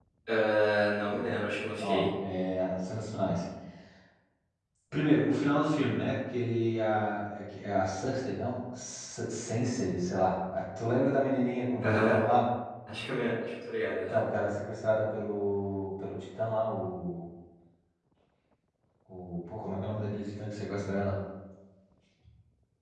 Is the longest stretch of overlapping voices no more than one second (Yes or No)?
Yes